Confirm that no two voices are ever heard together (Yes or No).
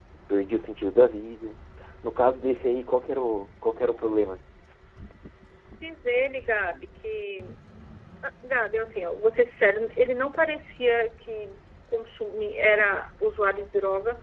Yes